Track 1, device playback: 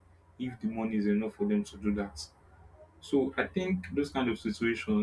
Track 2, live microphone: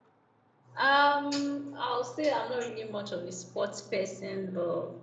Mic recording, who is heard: user only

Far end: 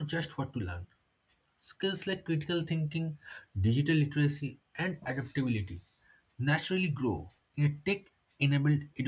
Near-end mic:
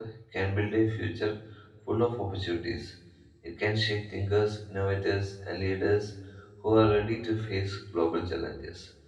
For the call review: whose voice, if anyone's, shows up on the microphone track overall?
user only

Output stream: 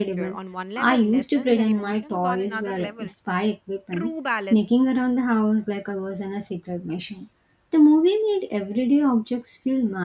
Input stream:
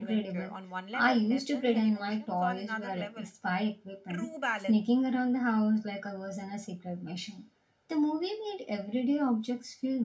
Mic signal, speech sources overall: echo only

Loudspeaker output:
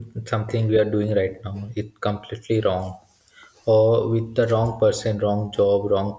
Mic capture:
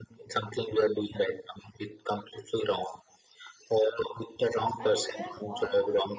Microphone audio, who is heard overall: both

